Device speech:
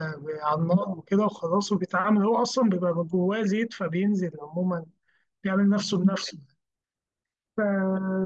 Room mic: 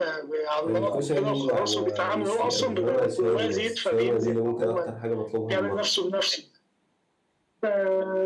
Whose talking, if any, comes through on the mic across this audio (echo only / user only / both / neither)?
both